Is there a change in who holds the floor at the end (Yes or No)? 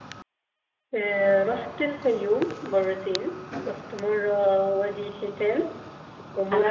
Yes